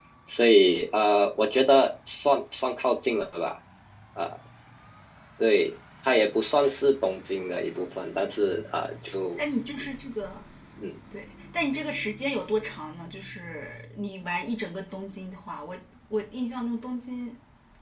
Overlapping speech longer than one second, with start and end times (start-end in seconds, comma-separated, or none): none